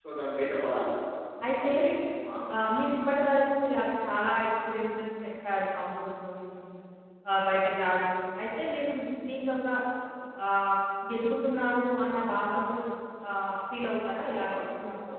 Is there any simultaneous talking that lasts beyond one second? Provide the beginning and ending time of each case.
none

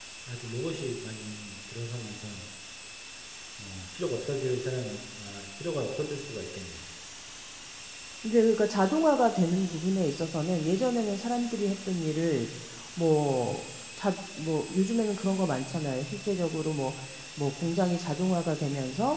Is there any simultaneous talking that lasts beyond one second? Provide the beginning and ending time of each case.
none

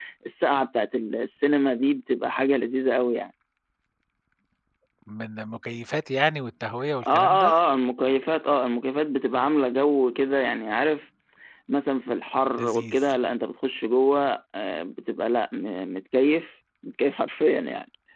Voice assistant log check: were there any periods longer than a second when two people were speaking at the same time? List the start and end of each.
none

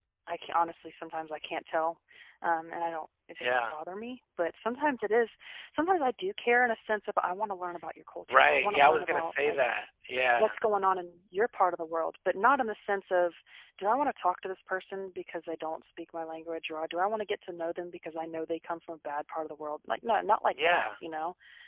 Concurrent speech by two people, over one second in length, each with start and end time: 8.3-9.6

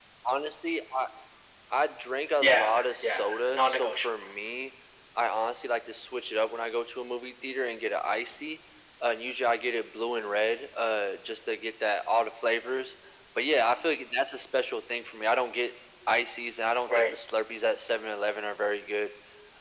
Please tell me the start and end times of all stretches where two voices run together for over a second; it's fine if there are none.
2.4-4.2

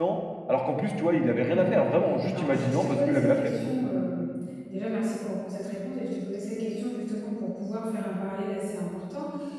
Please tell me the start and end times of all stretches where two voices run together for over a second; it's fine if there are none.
2.3-3.7

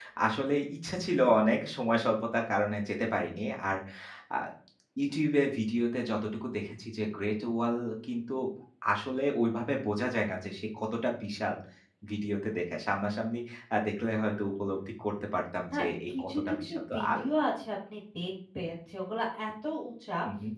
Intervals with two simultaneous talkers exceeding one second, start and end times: 15.7-17.2

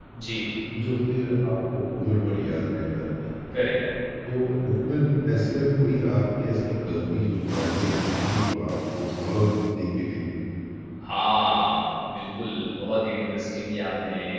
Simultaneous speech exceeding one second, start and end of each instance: none

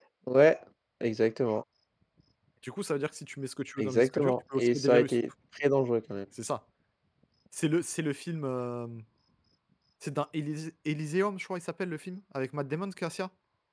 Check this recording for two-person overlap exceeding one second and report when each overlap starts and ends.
3.8-5.2

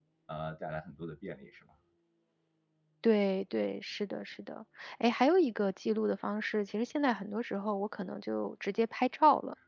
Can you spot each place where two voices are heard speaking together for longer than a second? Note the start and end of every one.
none

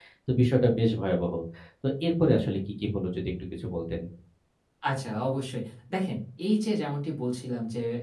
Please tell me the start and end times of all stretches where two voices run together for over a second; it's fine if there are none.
none

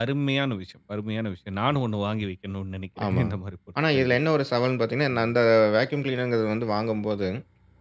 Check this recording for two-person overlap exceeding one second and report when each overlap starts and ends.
none

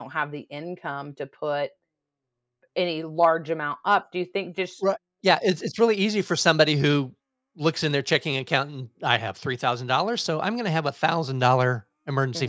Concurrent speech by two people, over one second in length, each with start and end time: none

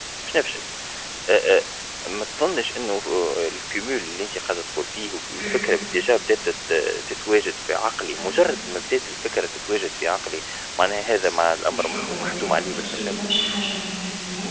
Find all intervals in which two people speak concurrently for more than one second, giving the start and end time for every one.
11.7-13.2

